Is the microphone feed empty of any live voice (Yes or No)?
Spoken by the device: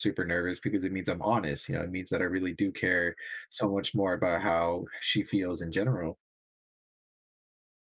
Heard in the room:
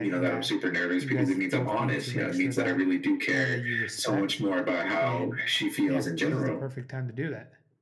No